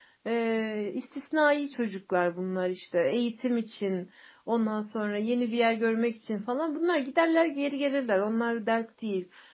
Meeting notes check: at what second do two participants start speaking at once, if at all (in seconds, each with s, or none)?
none